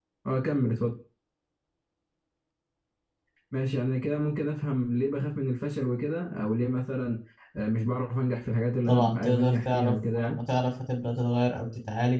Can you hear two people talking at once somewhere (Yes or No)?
Yes